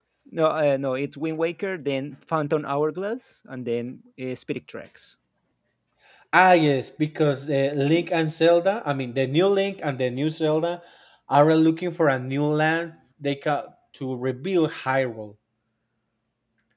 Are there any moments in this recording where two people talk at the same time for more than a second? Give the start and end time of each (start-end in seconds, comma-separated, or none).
none